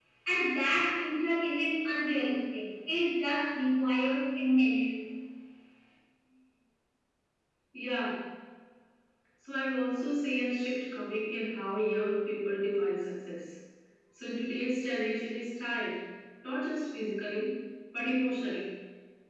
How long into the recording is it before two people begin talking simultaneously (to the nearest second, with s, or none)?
none